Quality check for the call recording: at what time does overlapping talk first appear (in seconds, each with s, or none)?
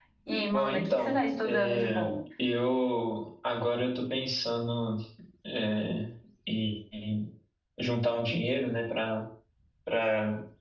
0.5 s